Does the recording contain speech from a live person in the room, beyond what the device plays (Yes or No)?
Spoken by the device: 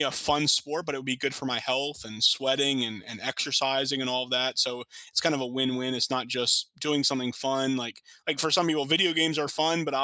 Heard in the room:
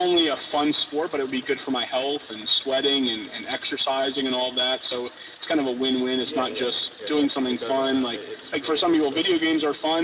Yes